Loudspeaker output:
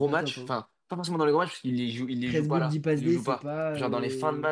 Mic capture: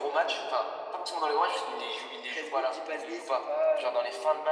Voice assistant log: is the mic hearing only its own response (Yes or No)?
Yes